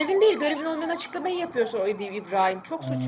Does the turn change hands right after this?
Yes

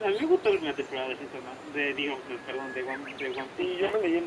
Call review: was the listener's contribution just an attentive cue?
No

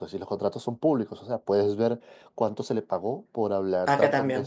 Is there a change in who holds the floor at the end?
No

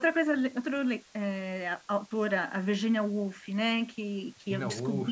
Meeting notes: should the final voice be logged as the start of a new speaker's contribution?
No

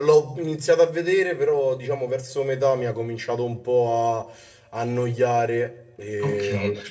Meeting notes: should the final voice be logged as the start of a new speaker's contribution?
Yes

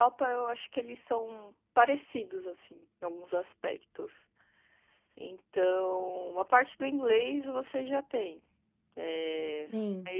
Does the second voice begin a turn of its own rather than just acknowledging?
No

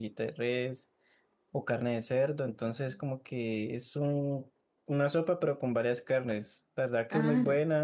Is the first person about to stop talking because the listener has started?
No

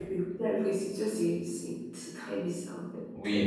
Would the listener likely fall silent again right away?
No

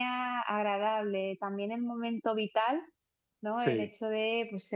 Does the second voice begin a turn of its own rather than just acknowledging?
No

